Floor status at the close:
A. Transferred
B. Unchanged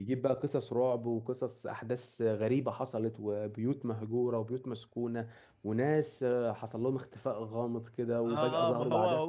A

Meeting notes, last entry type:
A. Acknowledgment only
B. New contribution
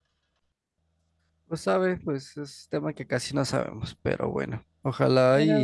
A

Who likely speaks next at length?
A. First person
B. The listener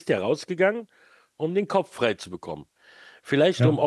A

